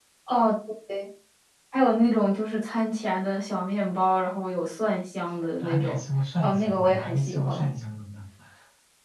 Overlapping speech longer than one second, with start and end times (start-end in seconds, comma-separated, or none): 6.4-7.7